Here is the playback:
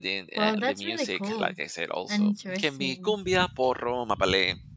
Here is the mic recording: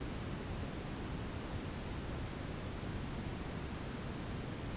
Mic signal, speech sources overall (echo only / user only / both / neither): neither